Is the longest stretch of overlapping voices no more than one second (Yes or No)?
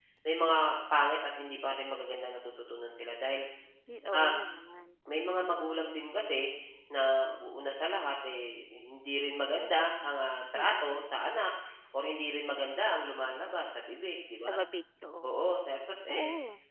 Yes